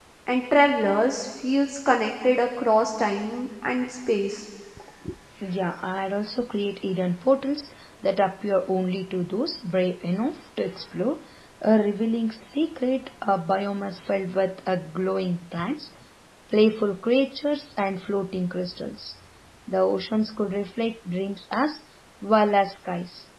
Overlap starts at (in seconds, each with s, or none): none